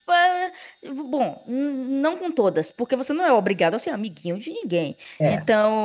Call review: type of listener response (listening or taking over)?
listening